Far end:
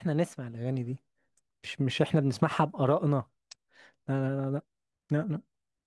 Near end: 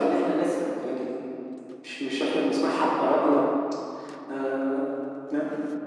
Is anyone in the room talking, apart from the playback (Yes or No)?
No